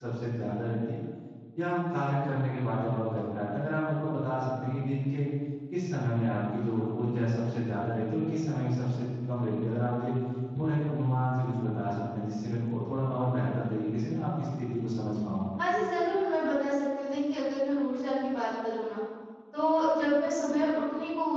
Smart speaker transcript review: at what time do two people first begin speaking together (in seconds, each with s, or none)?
none